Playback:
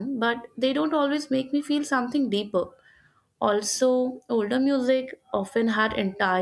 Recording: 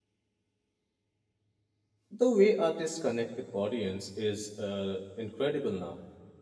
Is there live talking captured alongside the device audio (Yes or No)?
Yes